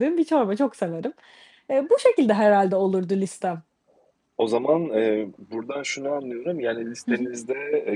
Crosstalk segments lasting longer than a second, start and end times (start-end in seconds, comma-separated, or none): none